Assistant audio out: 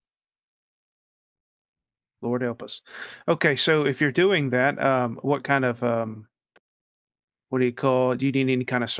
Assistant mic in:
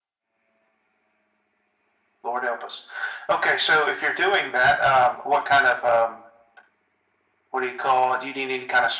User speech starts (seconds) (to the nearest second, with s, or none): none